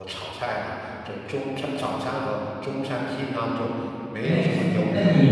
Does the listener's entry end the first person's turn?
Yes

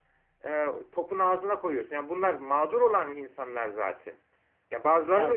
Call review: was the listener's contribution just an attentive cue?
Yes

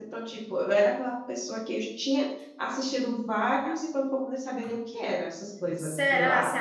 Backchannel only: No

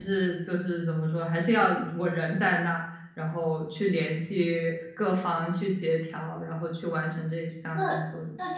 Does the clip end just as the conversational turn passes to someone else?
Yes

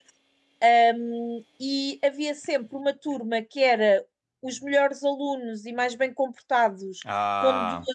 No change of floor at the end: Yes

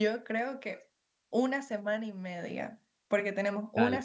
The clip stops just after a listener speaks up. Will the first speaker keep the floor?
Yes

